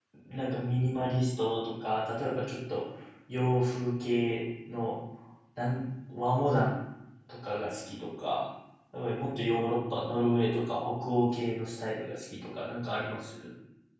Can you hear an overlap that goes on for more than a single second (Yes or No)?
No